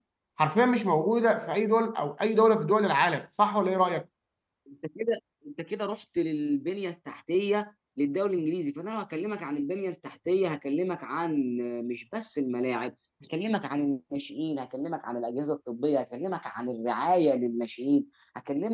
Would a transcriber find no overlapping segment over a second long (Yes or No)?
Yes